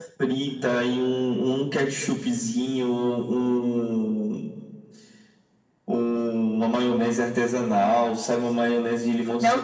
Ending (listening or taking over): taking over